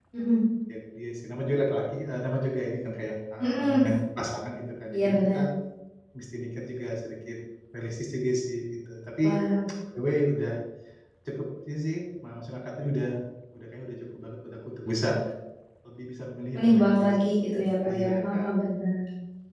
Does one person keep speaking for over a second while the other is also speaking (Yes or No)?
Yes